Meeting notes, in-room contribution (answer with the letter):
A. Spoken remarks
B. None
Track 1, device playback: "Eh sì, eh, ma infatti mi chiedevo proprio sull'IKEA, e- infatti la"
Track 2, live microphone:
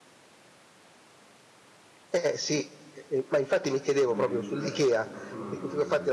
A